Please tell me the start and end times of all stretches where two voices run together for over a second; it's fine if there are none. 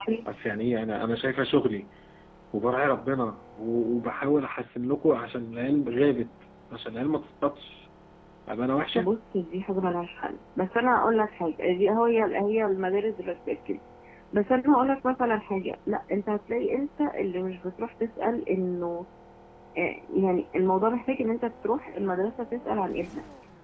none

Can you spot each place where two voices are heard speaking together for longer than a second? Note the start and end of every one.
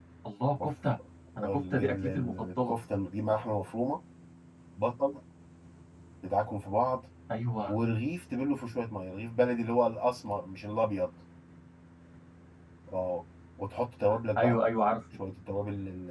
1.4-2.7

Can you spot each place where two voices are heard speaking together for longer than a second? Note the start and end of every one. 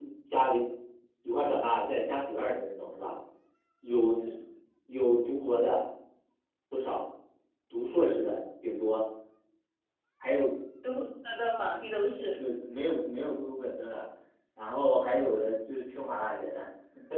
none

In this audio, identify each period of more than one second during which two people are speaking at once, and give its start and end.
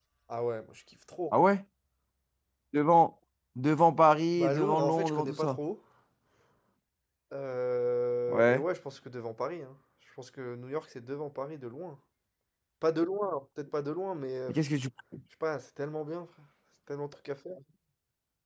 4.4-5.6

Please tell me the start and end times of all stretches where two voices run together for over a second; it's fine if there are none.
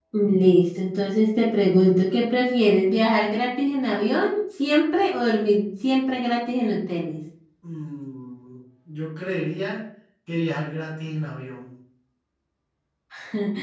none

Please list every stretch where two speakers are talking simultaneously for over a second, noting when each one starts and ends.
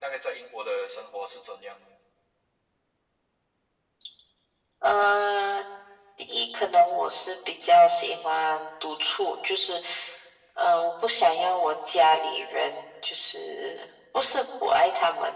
none

